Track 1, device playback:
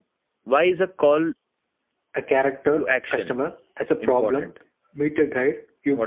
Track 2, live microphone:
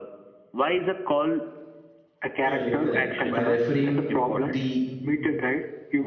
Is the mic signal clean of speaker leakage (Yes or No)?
No